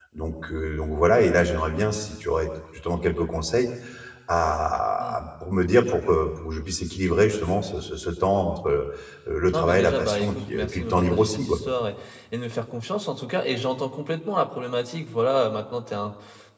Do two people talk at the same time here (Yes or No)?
Yes